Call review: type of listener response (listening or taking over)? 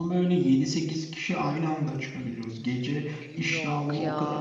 listening